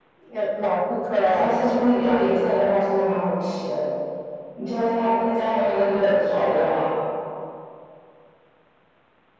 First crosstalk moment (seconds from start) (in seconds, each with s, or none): 1.2 s